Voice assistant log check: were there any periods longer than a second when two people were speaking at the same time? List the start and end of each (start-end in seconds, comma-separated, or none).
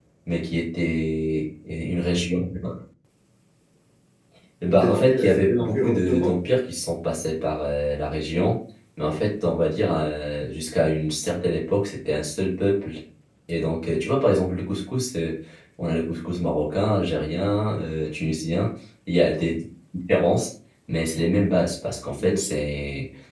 4.7-6.3